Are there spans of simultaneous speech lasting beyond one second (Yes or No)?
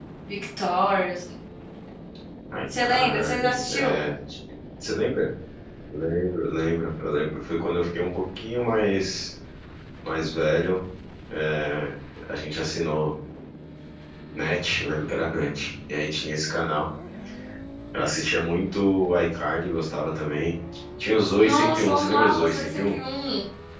Yes